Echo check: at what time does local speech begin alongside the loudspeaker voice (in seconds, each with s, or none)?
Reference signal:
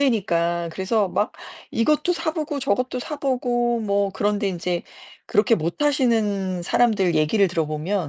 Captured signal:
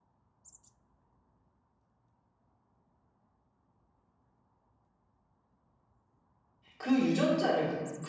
6.8 s